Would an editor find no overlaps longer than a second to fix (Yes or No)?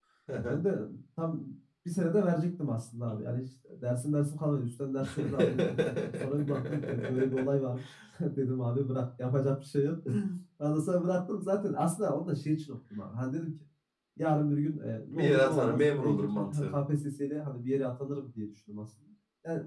No